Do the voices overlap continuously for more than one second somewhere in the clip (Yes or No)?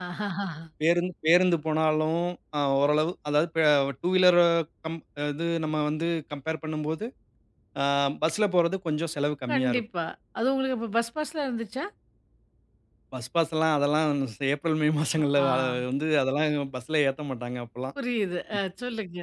No